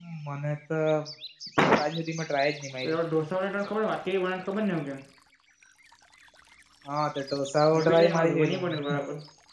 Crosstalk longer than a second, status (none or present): present